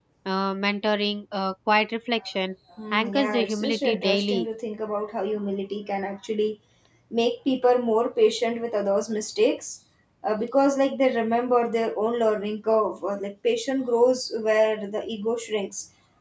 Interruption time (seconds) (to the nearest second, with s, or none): 3 s